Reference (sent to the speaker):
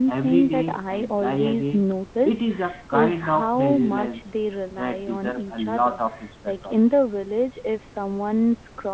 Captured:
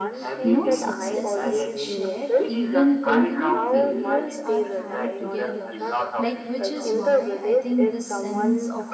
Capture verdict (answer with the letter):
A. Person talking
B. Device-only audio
A